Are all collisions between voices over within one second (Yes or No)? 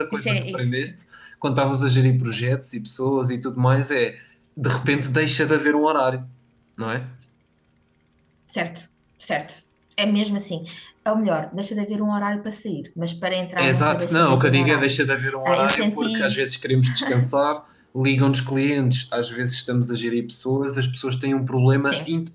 No